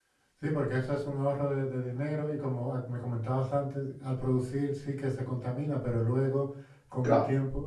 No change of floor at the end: No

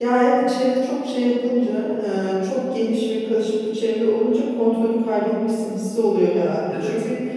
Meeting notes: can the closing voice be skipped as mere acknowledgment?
Yes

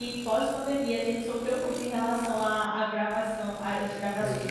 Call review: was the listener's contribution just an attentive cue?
Yes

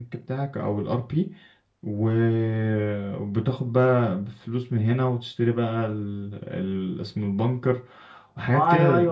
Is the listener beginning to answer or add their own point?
Yes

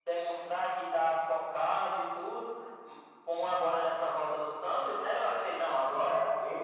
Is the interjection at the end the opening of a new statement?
No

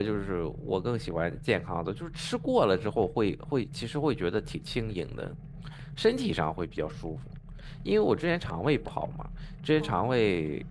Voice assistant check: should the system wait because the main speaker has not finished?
Yes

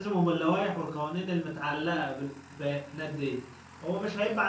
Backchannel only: Yes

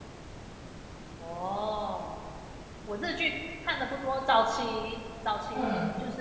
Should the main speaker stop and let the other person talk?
No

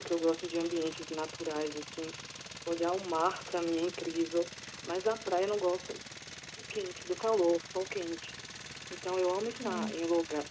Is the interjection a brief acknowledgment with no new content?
Yes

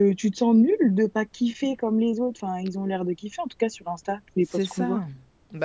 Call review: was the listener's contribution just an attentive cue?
No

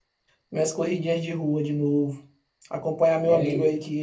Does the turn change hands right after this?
No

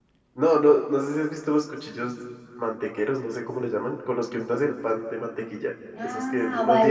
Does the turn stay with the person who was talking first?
No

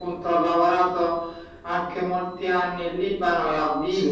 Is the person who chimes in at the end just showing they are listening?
Yes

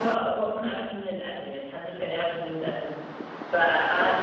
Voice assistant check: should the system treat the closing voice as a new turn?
No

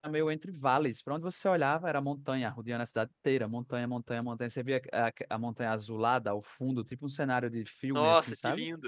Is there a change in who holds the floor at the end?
Yes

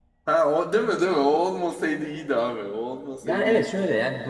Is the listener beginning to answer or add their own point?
Yes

